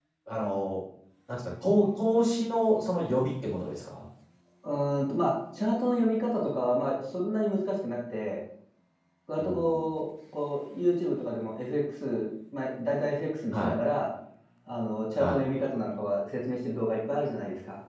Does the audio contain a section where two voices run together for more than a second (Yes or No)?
No